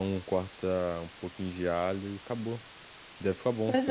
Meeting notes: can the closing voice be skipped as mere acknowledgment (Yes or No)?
No